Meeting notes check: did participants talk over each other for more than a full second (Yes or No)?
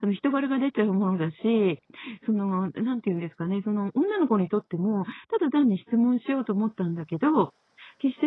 No